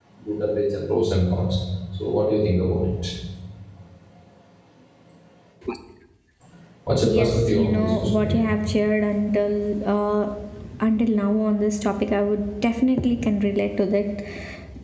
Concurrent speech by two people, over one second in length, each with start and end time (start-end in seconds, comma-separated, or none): 7.0-8.4